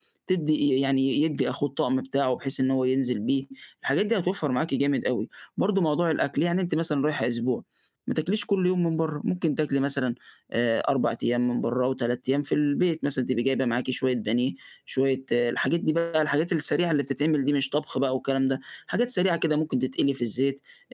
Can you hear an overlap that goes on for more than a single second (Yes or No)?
No